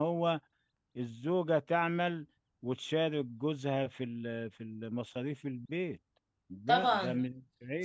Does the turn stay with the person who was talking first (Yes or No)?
No